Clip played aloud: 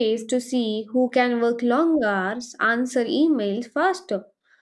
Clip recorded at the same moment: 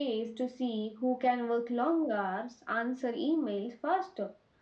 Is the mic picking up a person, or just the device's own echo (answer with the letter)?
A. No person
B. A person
A